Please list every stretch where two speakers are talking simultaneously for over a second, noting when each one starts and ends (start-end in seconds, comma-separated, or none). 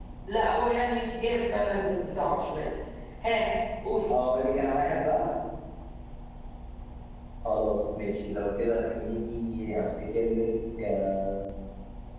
none